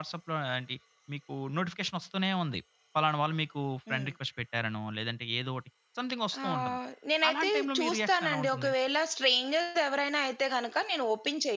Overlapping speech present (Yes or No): Yes